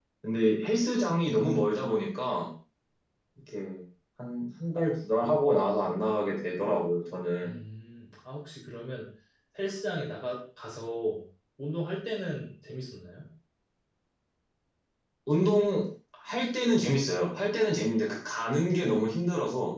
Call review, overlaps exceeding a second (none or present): none